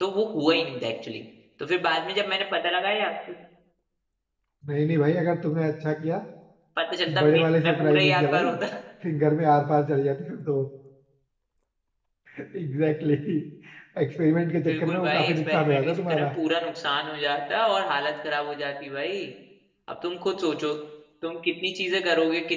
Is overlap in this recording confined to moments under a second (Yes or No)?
No